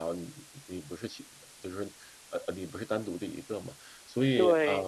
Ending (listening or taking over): taking over